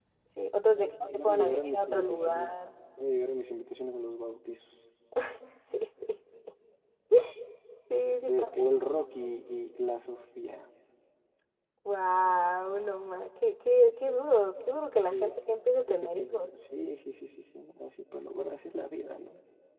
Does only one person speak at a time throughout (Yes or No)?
No